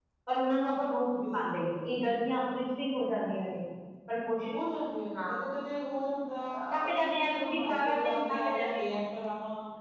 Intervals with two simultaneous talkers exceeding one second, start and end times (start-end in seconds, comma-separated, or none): 6.7-8.8